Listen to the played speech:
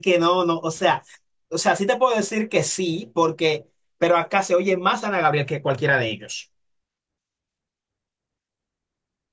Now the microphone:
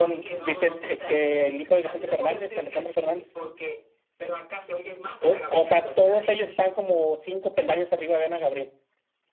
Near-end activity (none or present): present